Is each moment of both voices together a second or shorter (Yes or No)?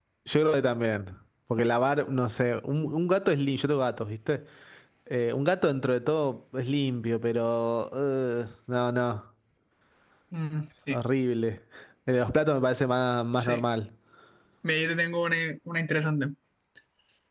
Yes